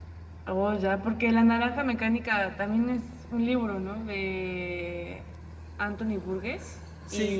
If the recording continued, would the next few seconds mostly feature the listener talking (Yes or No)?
Yes